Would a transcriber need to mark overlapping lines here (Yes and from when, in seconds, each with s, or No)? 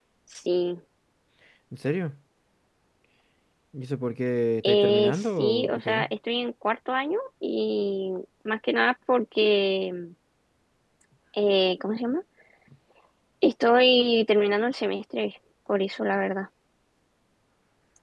Yes, from 4.6 s